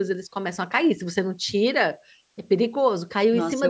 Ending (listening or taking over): listening